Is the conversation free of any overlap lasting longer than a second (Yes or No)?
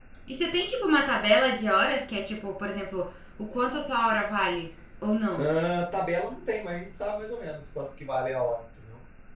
Yes